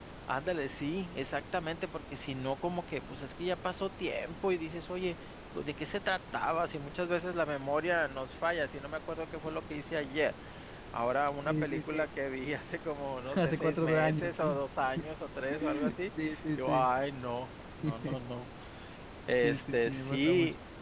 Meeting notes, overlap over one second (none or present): present